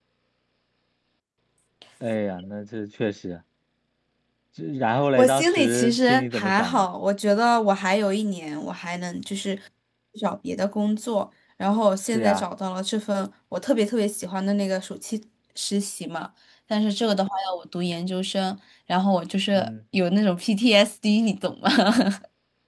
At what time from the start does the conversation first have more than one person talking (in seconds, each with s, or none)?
5.2 s